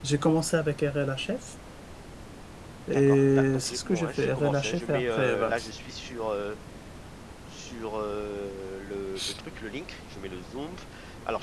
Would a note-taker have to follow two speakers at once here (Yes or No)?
Yes